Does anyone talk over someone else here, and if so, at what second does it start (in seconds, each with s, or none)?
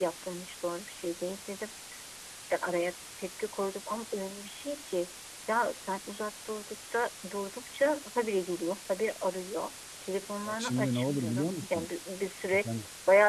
10.4 s